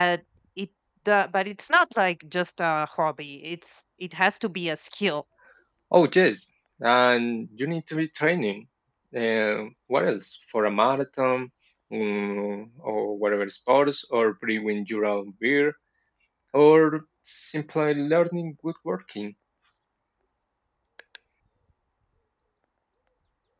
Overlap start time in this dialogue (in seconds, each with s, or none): none